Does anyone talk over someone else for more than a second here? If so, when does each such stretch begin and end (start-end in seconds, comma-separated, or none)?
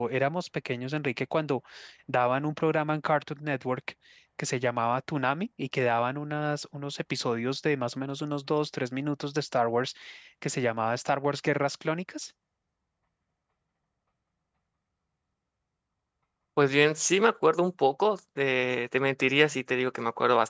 none